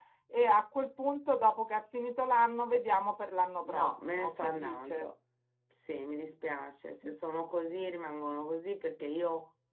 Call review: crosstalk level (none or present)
present